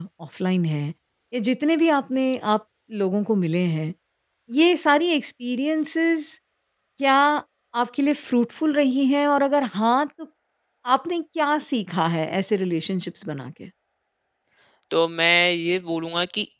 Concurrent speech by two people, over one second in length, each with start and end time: none

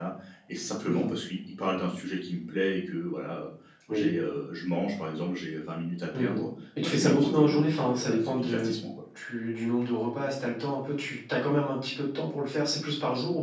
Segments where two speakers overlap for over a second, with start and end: 6.8-8.7

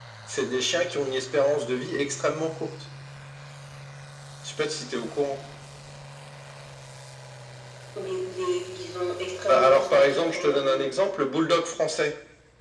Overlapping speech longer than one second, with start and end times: 9.5-10.9

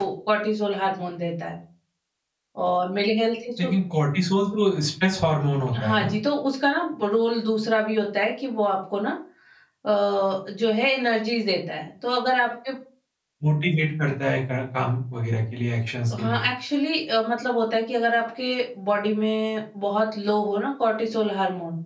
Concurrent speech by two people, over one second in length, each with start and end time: none

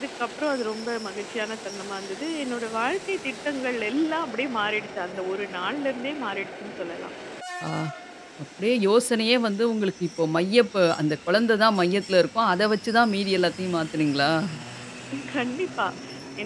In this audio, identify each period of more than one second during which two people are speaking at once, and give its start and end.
none

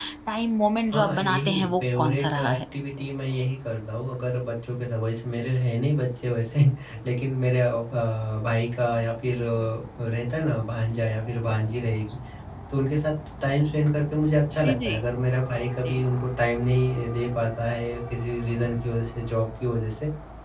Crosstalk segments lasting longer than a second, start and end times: 0.9-2.6

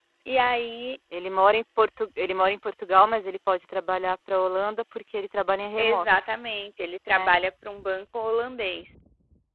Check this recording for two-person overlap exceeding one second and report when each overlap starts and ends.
none

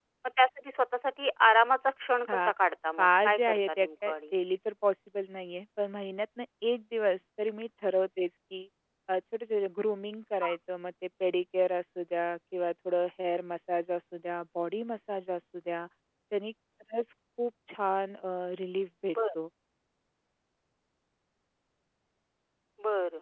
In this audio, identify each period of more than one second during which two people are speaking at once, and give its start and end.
3.0-4.3

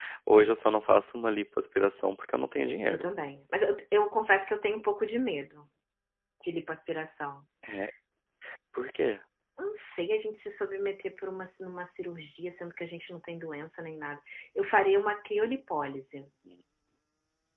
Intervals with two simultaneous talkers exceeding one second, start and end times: none

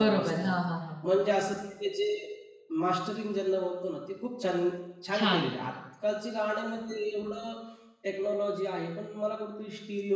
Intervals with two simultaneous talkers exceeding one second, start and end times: none

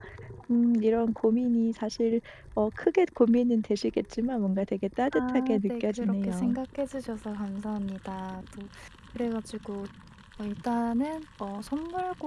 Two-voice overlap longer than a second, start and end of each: 5.1-6.6

